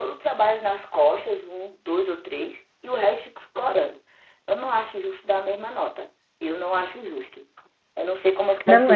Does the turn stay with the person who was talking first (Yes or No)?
No